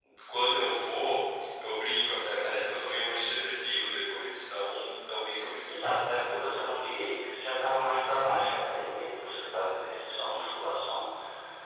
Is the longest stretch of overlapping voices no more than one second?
Yes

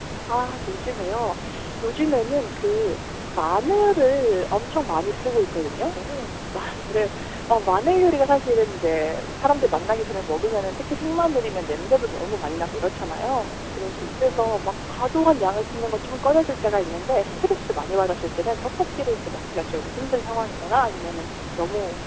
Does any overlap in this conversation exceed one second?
No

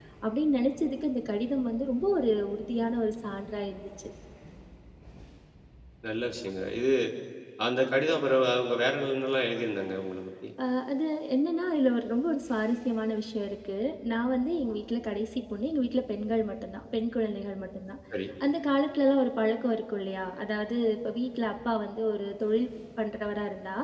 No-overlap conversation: Yes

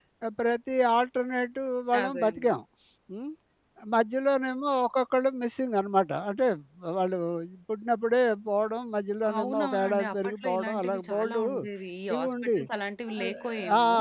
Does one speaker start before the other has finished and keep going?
Yes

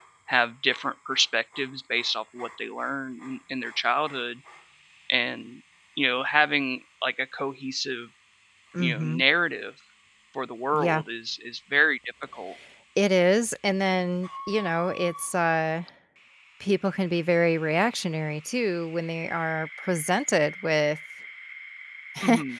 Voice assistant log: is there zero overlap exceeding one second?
Yes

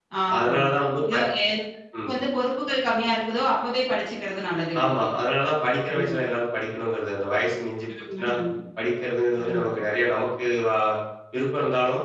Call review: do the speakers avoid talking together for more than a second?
Yes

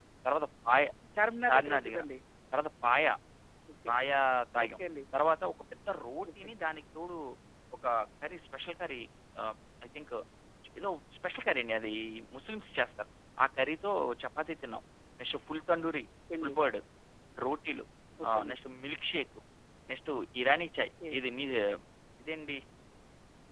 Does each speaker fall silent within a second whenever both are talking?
Yes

